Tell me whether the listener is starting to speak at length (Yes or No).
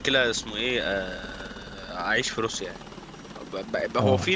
No